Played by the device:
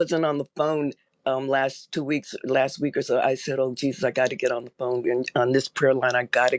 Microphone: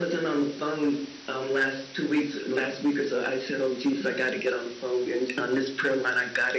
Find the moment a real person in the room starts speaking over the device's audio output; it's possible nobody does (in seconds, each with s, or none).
none